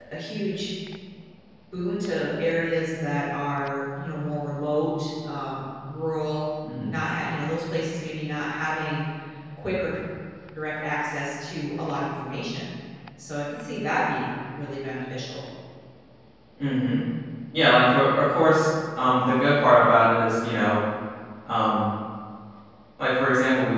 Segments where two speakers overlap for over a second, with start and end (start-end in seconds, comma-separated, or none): none